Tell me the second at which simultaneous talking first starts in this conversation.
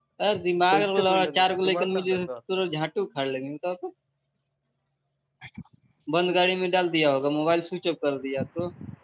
1 s

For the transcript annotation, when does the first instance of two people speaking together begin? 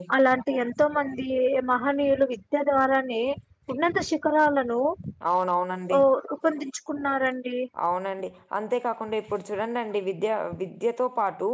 none

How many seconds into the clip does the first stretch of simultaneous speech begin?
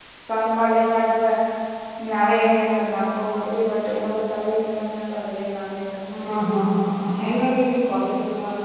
none

